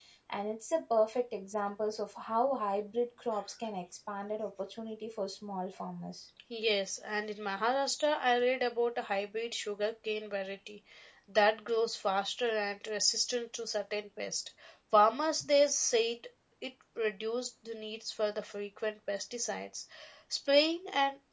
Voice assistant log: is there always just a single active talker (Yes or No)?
Yes